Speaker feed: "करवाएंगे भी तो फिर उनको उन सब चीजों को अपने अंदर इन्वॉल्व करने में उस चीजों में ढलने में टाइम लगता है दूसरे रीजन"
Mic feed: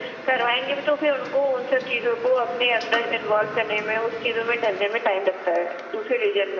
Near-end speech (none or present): none